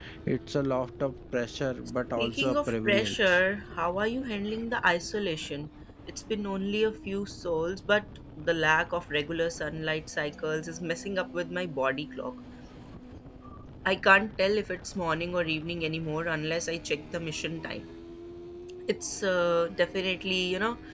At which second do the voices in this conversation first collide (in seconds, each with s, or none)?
2.2 s